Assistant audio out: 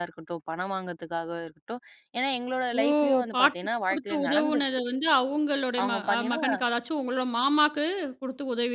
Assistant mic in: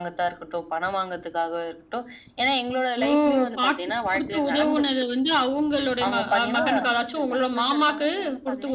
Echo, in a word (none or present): present